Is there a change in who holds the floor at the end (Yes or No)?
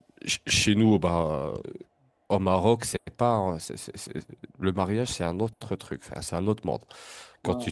No